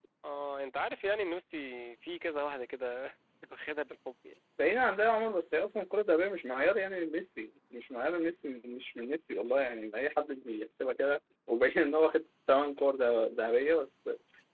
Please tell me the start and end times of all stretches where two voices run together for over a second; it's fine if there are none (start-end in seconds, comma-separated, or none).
none